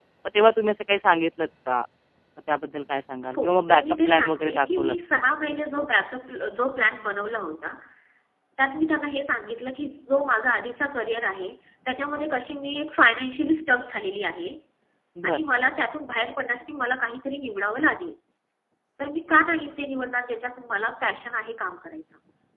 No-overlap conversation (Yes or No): No